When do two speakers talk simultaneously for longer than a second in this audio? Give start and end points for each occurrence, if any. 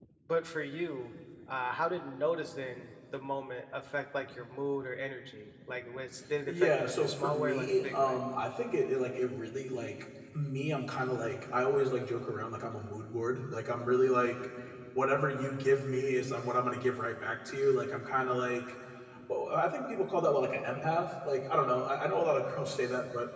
6.4-8.2

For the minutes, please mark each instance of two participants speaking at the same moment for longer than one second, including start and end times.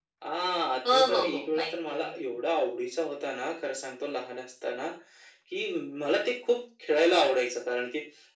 0.9-2.1

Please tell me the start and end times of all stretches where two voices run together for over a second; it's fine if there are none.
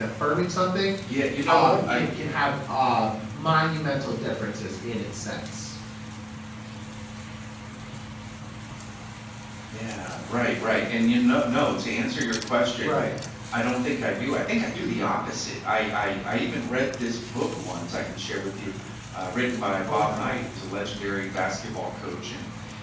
none

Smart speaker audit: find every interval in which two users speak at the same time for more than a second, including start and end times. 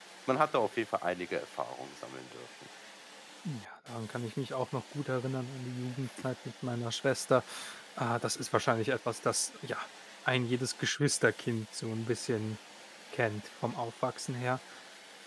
none

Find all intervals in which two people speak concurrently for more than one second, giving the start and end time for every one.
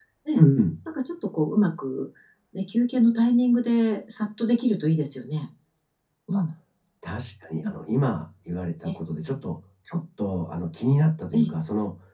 none

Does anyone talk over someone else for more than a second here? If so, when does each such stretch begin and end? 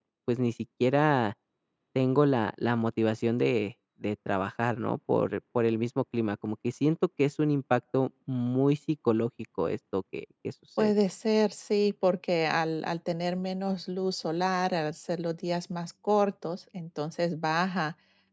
none

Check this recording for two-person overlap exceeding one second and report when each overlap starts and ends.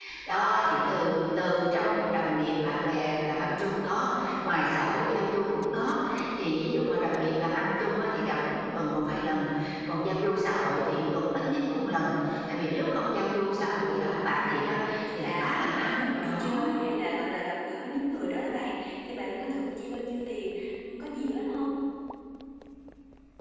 14.3-16.6

